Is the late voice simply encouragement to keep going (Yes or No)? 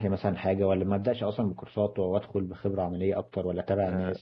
No